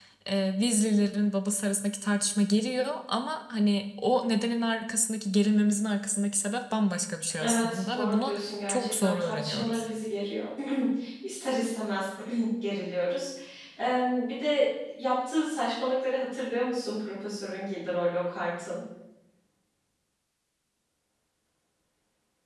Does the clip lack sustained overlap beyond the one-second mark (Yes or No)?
No